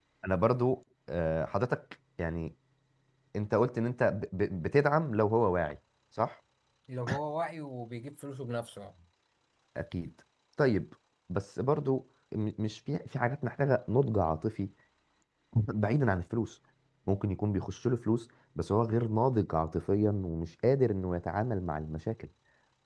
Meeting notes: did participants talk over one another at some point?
No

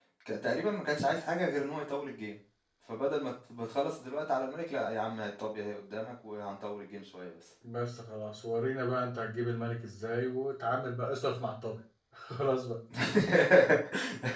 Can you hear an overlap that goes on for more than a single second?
No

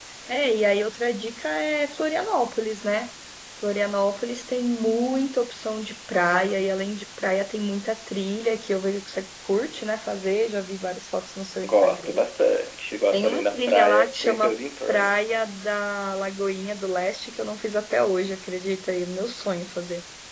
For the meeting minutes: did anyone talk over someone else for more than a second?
Yes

